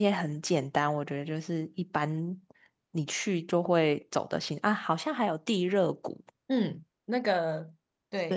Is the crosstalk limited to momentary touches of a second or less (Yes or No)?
Yes